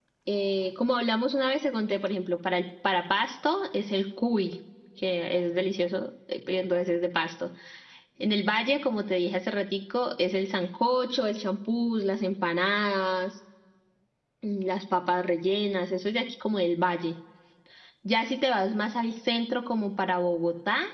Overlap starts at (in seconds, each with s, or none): none